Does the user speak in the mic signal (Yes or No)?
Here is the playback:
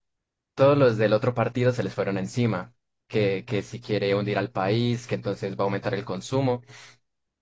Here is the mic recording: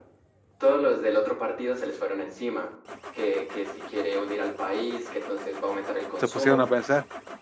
Yes